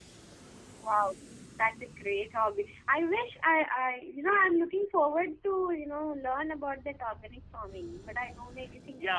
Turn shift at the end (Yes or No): Yes